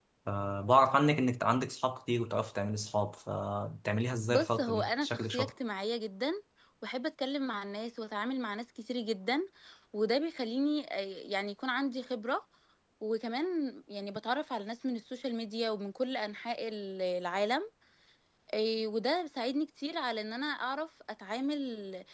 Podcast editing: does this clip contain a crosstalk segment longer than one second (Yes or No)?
Yes